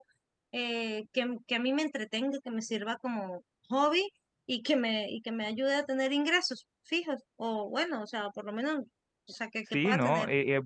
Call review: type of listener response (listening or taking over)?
taking over